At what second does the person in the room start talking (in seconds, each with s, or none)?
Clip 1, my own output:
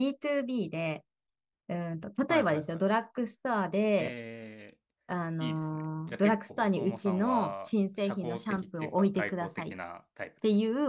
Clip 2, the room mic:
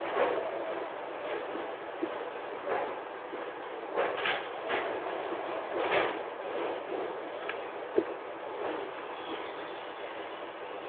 none